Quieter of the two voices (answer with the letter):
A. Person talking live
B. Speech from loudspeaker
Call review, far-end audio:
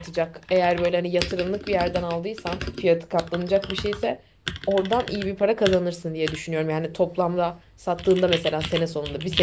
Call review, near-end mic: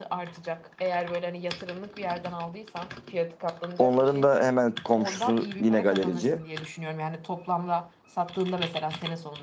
B